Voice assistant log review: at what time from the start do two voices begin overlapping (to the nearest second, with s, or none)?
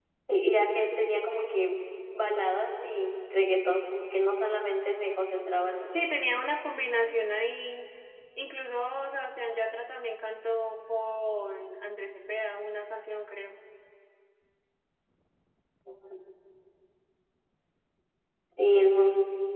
none